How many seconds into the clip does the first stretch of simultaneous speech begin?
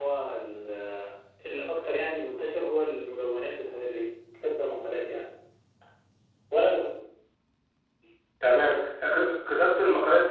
none

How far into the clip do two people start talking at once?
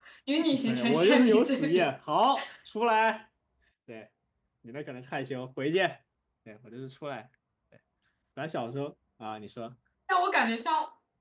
0.7 s

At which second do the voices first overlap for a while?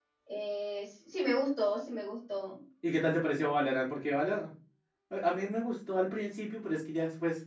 none

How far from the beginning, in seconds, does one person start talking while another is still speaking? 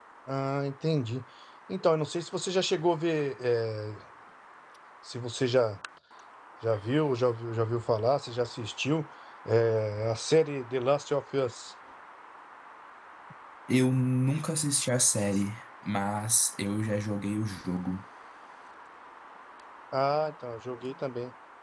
none

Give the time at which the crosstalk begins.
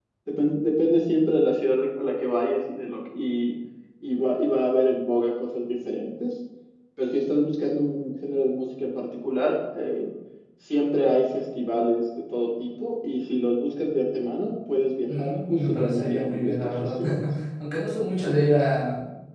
15.1 s

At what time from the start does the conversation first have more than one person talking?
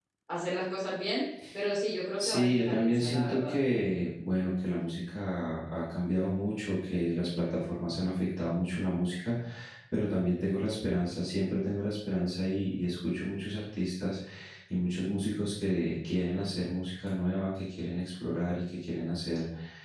2.2 s

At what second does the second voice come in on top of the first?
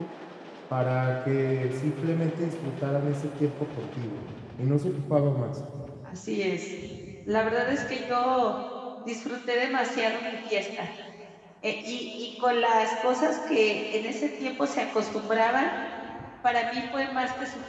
none

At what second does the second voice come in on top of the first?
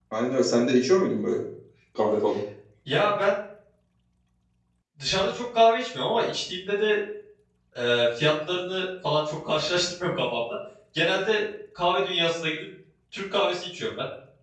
none

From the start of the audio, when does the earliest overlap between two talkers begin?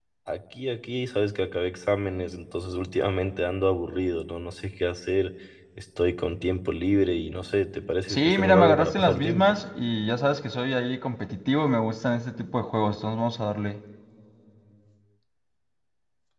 8.1 s

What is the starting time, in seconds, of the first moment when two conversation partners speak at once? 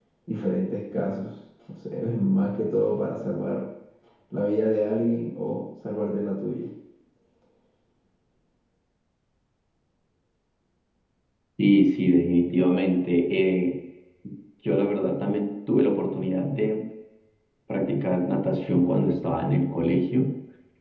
none

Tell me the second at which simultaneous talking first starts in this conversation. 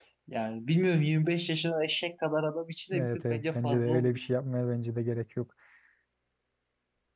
2.9 s

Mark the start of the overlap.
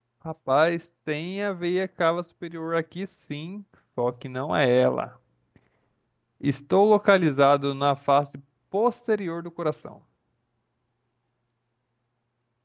none

